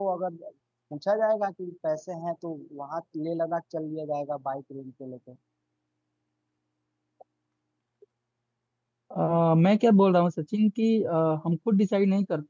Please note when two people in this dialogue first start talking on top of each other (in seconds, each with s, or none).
none